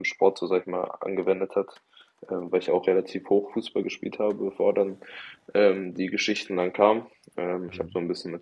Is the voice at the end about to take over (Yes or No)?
No